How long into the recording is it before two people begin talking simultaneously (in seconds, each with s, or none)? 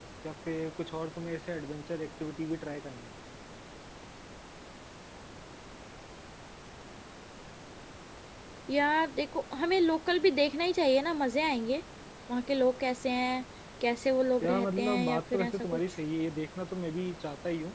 14.4 s